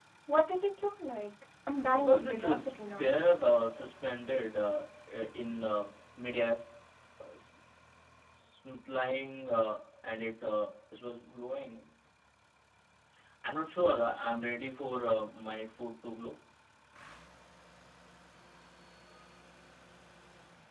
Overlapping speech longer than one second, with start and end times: 1.9-3.1

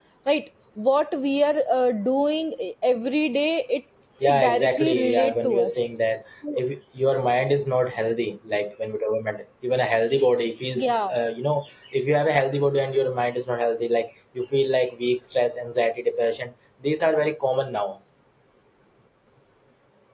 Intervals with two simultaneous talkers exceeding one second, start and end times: 4.2-5.7

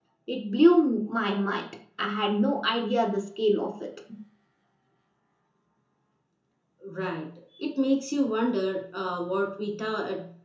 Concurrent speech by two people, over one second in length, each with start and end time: none

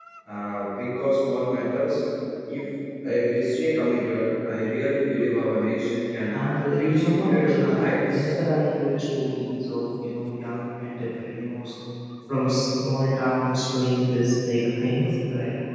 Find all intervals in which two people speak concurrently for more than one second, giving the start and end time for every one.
6.8-8.3

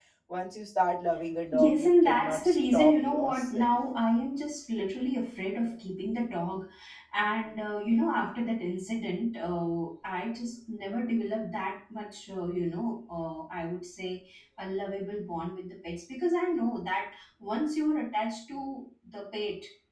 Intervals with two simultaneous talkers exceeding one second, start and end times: 1.5-3.6

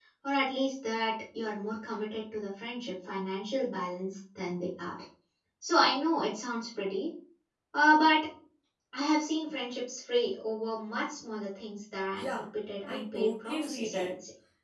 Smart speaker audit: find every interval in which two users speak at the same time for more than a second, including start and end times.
12.9-14.1

